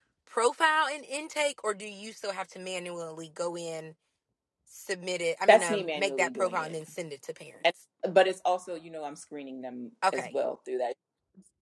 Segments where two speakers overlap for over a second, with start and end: 5.5-6.7

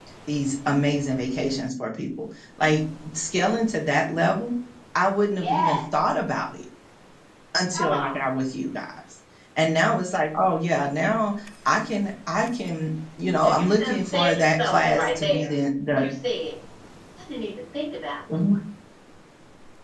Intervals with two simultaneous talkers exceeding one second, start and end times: 14.1-15.5

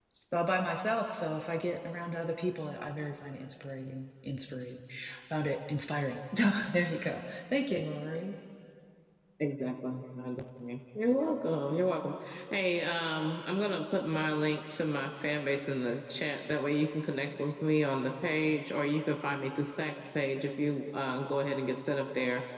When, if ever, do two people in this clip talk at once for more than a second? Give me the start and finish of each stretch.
none

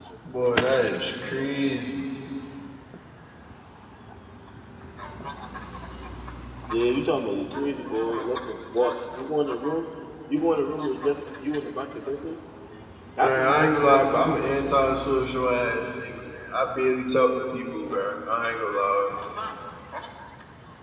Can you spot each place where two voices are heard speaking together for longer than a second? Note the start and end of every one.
13.2-14.7

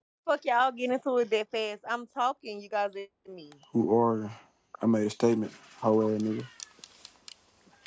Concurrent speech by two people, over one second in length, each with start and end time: none

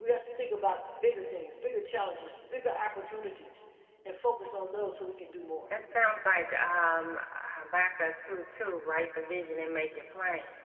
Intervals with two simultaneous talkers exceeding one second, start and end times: none

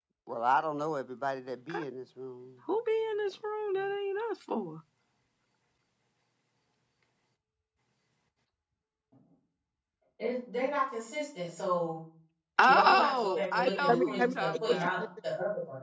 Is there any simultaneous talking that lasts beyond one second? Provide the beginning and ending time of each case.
12.7-15.0

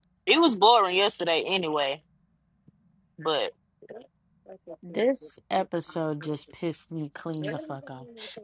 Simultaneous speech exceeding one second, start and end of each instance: none

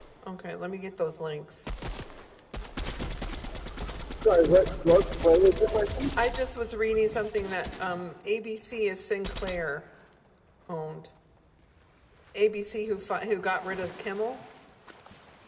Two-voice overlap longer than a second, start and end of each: none

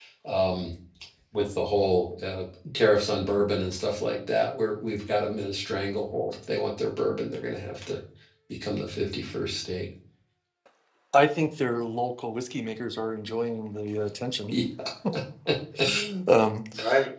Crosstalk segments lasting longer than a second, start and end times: none

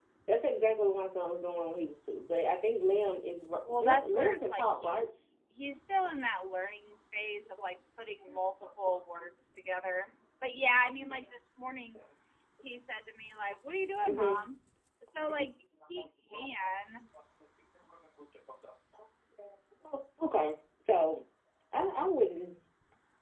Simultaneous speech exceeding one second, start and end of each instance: 3.7-5.0

